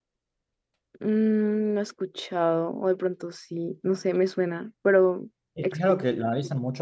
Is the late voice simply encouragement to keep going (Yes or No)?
No